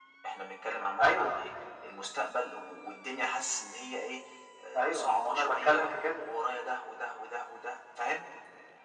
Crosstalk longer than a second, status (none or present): present